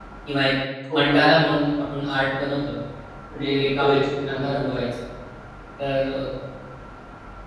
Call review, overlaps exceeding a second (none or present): present